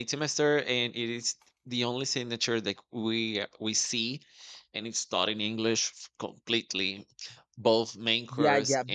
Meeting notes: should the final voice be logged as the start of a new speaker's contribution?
Yes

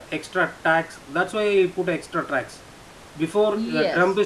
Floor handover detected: No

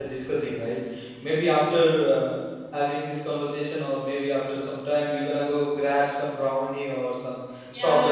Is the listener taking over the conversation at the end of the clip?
Yes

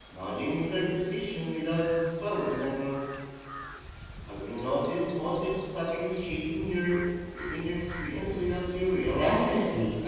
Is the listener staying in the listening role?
No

